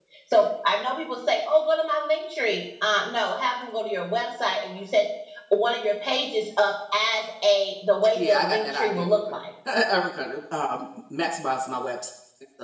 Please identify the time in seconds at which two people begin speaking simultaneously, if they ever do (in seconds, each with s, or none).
8.2 s